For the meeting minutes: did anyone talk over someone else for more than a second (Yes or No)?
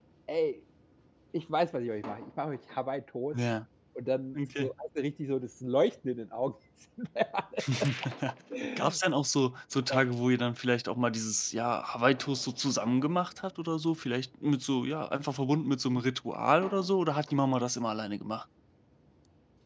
No